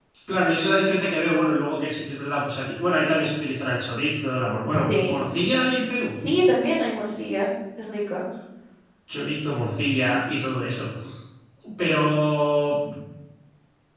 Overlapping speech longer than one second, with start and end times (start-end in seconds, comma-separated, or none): none